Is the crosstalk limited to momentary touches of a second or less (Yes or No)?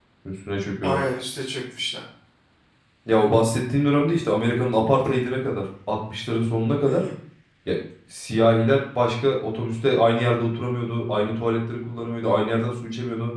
Yes